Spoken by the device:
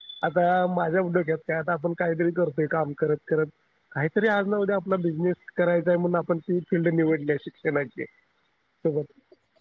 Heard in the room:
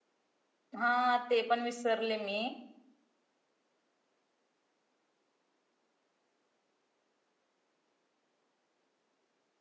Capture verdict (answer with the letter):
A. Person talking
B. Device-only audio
A